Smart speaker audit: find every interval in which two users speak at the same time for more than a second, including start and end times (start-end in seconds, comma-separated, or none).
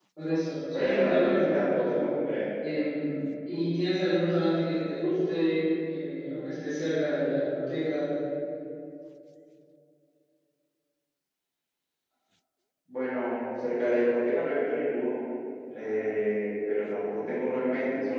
0.7-2.1